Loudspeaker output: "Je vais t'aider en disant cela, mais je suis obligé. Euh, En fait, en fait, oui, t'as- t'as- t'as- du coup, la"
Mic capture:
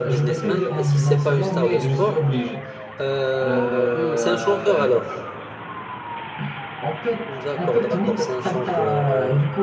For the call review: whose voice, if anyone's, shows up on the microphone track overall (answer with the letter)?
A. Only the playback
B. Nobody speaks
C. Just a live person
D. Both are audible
D